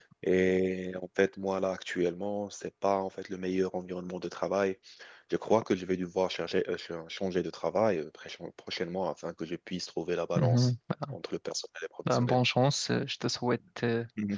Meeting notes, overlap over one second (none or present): none